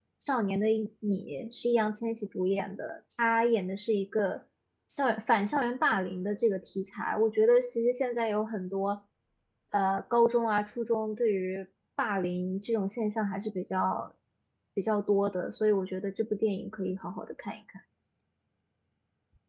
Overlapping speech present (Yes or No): No